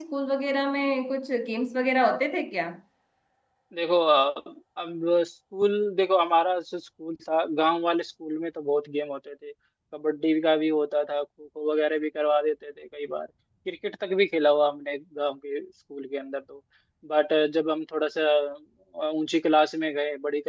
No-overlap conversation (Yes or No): Yes